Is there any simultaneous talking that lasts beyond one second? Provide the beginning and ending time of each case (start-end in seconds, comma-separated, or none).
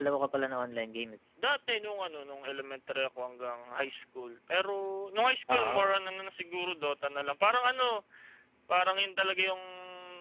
none